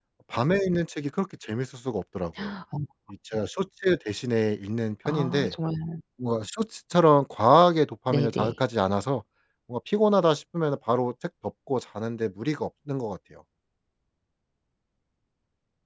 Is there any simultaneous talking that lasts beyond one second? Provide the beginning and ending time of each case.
none

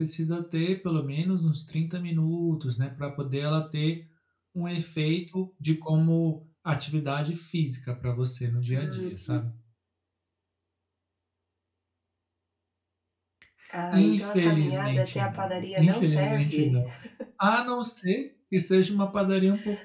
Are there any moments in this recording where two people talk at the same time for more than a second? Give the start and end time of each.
13.9-16.8

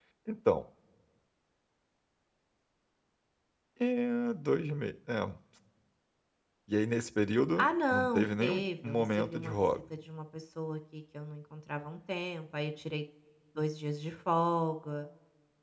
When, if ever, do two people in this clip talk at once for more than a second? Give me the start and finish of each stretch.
7.6-9.7

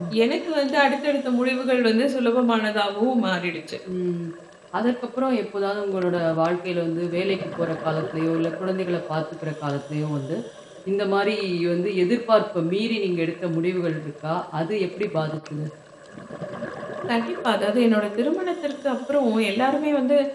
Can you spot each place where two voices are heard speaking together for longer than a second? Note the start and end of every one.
none

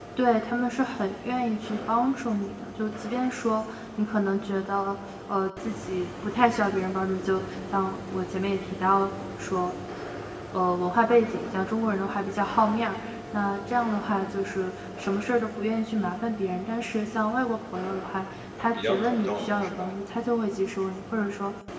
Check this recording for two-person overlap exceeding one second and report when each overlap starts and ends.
18.1-20.0

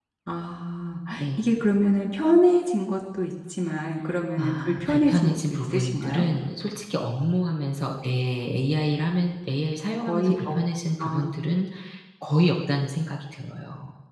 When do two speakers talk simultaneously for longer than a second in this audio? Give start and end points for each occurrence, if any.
4.4-6.2

